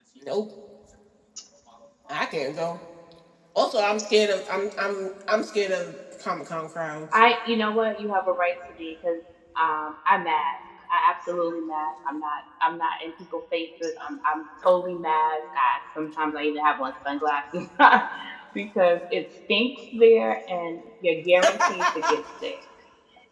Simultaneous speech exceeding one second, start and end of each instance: none

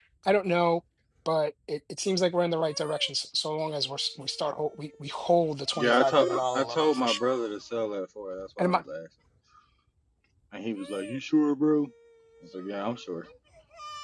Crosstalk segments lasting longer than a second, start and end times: 5.8-7.2

